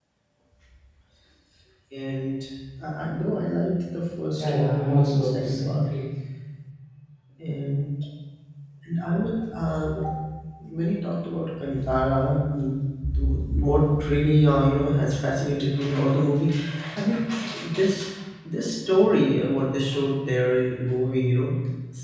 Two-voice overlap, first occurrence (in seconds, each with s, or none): 4.4 s